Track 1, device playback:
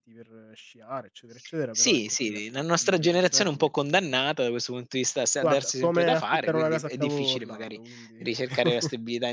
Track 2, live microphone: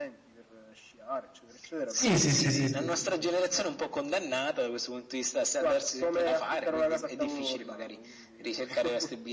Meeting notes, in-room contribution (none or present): present